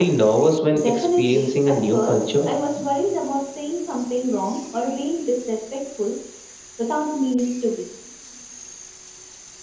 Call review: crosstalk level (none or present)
present